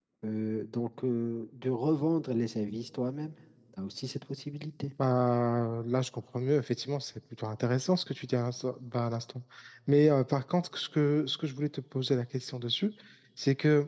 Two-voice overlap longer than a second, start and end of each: none

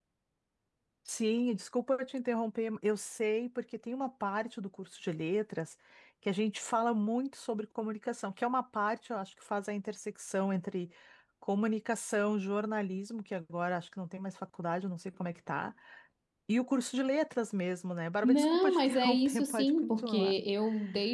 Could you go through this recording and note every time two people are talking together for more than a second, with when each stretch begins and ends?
18.2-20.3

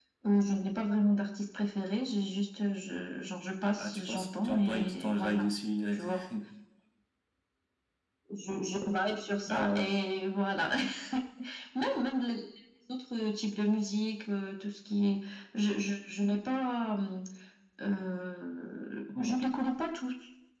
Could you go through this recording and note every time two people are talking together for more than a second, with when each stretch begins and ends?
3.8-5.5

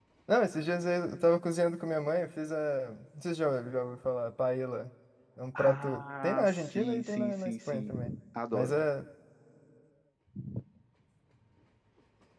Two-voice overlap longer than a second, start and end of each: 5.6-7.9

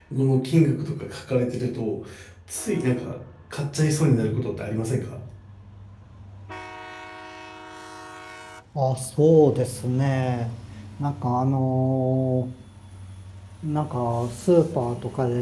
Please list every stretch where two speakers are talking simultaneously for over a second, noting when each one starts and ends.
none

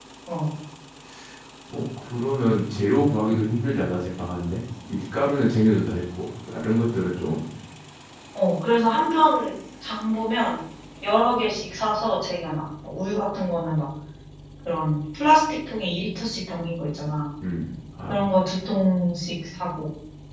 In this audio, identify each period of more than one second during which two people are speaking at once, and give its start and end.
none

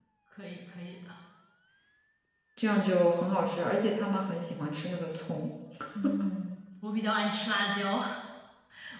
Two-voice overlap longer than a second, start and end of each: none

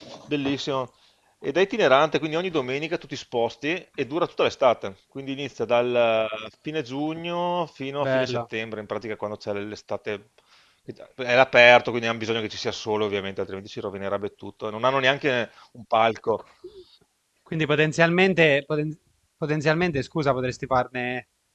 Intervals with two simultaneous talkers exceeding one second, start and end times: none

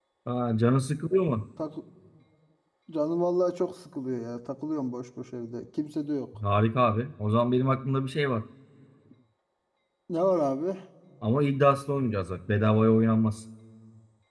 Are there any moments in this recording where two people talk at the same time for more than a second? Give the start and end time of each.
none

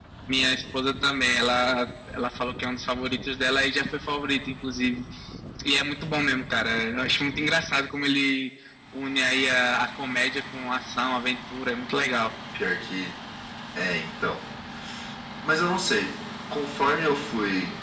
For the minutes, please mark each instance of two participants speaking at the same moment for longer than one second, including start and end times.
none

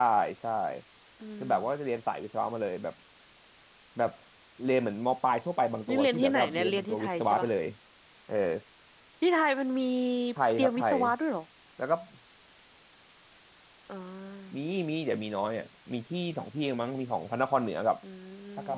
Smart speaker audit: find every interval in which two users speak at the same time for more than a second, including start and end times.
5.9-7.5

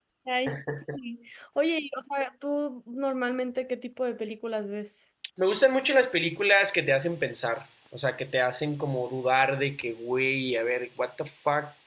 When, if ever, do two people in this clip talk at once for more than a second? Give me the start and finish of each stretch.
none

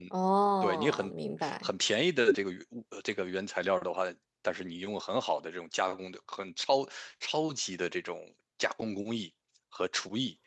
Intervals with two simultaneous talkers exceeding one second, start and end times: none

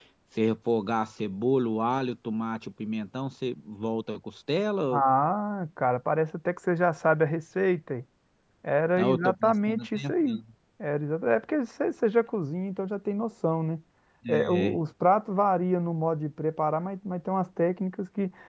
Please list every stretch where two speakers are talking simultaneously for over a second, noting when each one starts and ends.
9.0-10.4

